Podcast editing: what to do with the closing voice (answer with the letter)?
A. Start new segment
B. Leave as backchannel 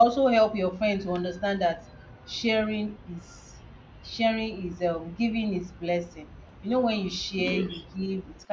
B